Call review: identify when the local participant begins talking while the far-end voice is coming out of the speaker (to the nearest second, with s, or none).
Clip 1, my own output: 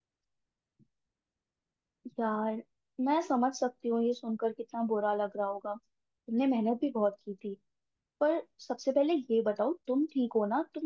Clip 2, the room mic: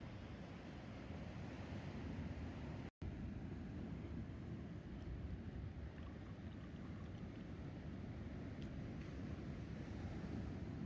none